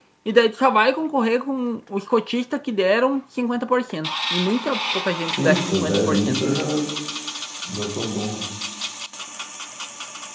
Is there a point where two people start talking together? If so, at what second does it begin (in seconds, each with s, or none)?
5.3 s